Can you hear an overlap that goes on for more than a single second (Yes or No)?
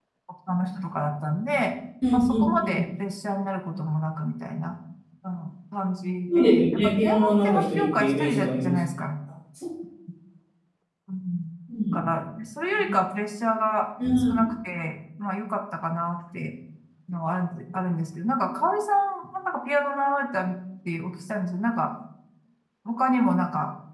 Yes